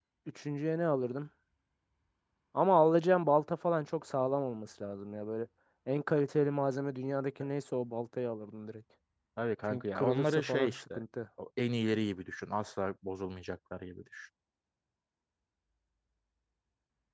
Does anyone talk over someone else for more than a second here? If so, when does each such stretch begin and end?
9.7-11.0

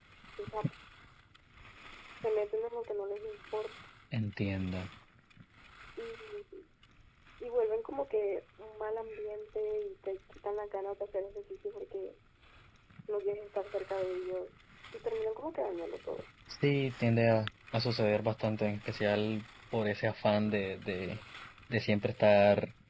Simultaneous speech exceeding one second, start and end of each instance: none

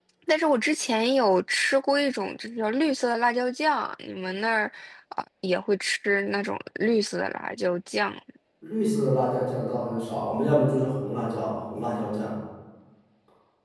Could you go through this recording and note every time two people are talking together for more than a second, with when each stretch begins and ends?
none

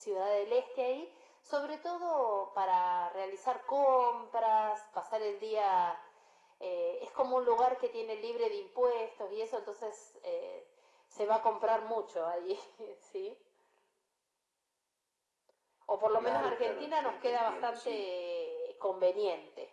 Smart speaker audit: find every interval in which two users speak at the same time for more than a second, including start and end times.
16.2-18.0

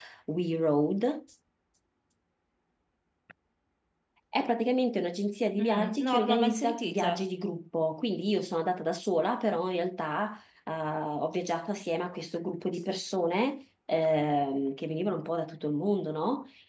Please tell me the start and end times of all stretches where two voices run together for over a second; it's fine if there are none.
5.6-7.2

